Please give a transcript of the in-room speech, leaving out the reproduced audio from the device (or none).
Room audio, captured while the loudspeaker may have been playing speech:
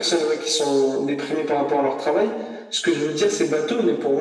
none